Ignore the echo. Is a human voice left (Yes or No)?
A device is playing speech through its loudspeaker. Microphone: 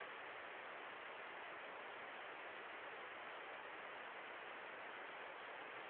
No